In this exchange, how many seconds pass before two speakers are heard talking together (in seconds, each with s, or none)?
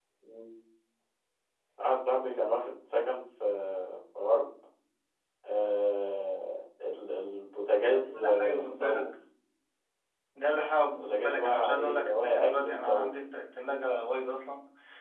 7.8 s